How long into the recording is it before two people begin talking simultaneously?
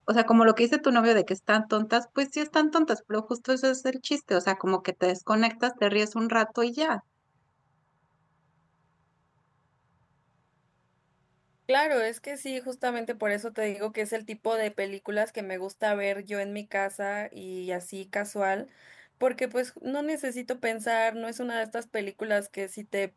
none

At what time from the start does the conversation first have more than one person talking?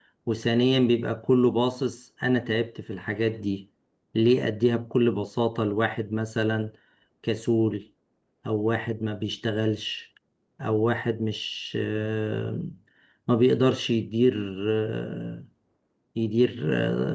none

